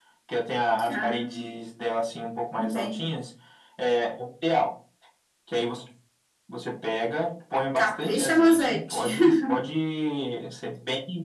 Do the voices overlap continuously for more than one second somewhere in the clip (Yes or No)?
Yes